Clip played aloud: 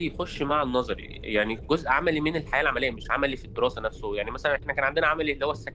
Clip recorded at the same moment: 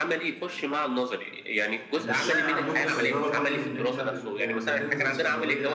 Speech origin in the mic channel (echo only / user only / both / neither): both